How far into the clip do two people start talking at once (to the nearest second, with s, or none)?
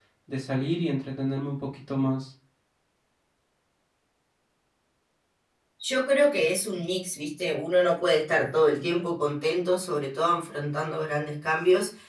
none